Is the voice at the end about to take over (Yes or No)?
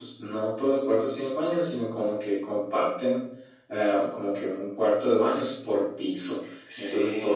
No